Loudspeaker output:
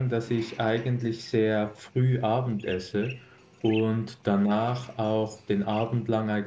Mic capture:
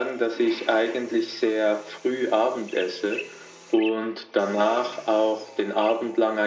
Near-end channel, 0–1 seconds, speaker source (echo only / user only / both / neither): echo only